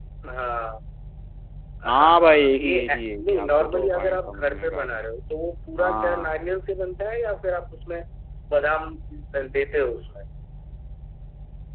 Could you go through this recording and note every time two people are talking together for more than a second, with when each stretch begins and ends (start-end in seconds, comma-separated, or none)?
1.9-4.9